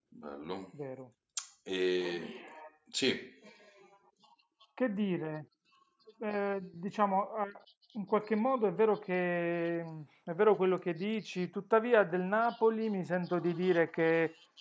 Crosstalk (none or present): none